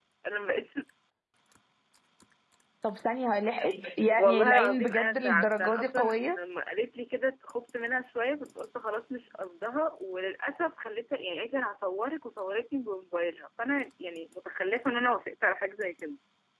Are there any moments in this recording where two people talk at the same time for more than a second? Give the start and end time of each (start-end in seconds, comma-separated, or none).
4.2-6.4